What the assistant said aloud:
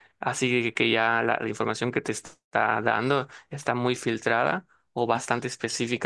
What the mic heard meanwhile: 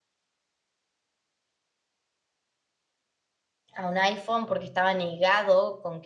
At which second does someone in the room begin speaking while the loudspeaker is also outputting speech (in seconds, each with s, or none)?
3.7 s